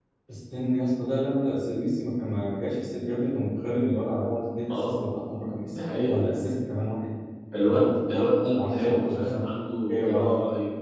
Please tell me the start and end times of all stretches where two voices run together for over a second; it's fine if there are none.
7.7-9.5

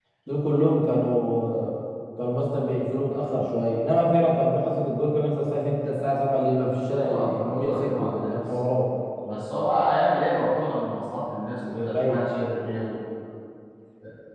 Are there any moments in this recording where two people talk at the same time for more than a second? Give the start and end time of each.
7.0-8.4

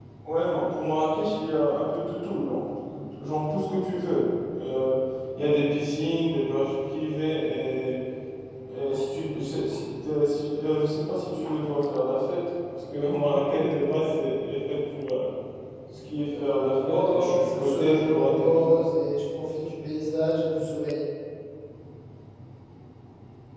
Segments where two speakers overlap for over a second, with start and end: 16.4-18.7

